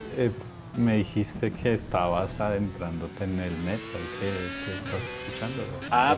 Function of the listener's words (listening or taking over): taking over